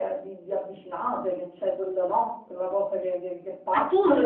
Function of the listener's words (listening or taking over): taking over